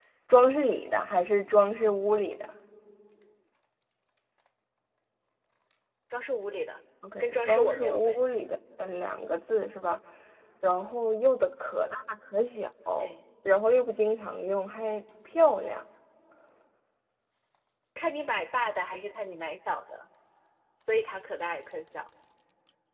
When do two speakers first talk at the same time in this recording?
7.0 s

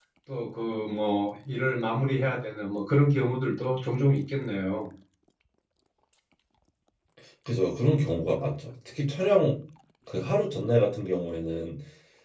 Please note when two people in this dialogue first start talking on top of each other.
none

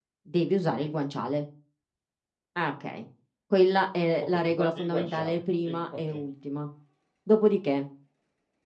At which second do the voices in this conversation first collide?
4.2 s

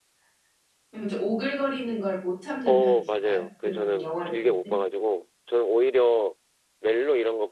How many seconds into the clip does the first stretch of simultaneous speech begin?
2.7 s

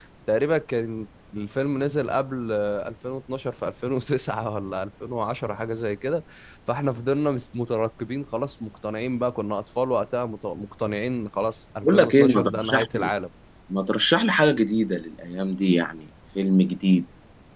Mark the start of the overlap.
11.8 s

